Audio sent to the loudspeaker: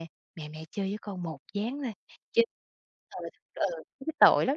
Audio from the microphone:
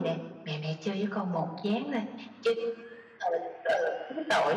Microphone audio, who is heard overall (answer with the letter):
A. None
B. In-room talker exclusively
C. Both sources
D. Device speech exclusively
D